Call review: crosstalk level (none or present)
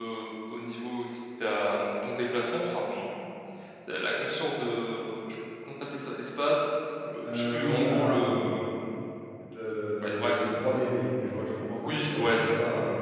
present